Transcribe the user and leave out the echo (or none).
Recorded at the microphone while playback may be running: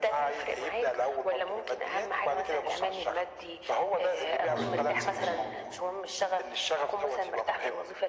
مضبوط، مضبوط،